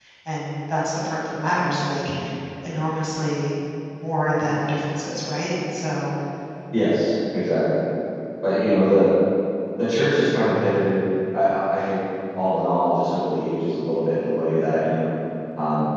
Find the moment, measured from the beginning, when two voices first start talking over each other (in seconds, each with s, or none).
none